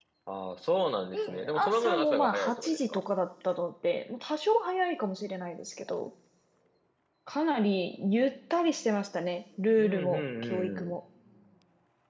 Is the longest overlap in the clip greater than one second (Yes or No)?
Yes